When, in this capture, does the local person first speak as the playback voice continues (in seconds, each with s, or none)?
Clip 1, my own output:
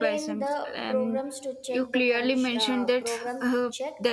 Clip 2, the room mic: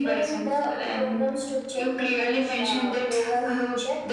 none